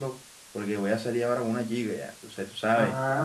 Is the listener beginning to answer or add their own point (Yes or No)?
Yes